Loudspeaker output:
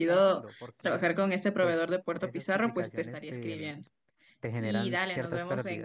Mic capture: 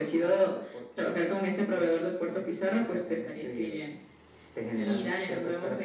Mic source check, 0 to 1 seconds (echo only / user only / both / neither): echo only